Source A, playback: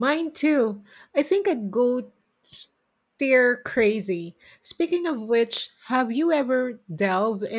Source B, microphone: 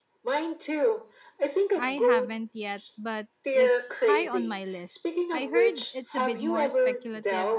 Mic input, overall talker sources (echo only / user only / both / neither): both